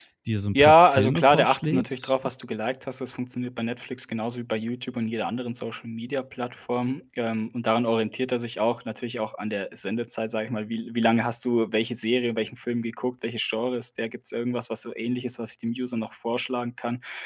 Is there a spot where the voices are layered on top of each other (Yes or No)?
Yes